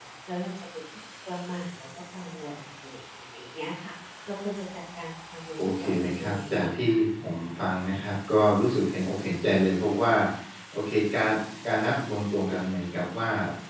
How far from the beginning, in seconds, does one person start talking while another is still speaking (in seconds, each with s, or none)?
5.6 s